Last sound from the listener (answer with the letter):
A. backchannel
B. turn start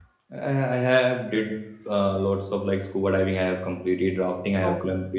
A